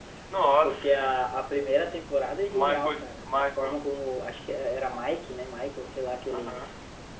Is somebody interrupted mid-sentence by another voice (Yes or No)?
Yes